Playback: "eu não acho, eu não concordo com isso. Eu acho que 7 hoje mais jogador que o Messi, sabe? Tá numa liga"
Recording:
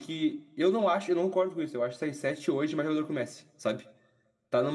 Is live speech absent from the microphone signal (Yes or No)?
Yes